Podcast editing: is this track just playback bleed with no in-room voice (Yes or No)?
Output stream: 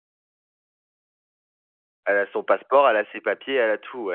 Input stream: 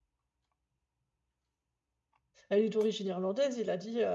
No